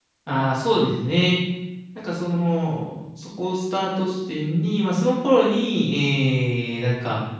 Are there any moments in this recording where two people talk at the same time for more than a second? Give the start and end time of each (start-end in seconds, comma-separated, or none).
none